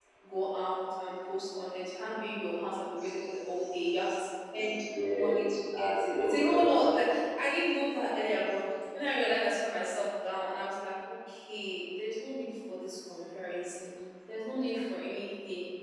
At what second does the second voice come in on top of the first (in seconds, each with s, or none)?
4.9 s